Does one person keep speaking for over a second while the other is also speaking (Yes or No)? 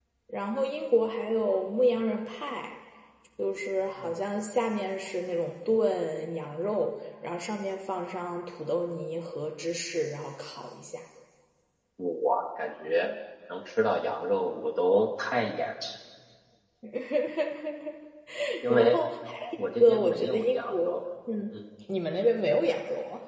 Yes